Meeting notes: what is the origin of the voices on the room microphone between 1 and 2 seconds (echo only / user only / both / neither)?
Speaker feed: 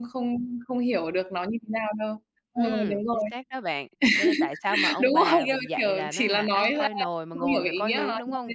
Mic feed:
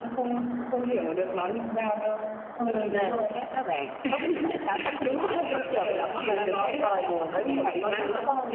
echo only